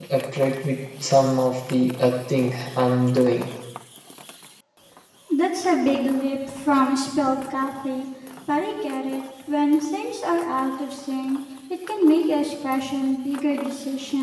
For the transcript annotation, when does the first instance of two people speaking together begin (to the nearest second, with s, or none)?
none